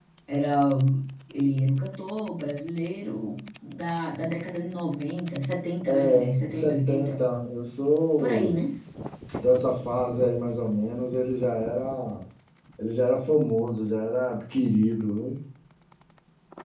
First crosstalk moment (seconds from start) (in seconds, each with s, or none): 5.9 s